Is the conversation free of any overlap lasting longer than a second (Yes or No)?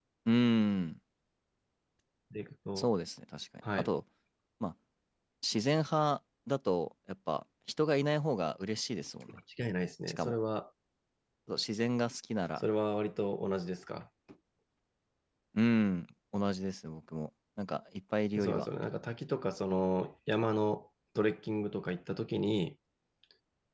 Yes